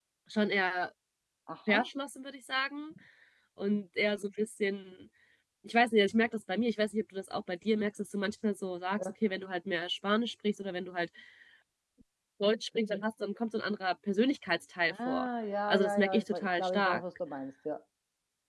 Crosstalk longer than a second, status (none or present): present